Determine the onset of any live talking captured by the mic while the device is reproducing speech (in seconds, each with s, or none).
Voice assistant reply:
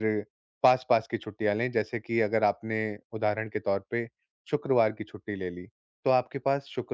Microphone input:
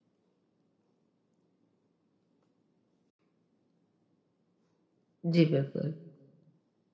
5.3 s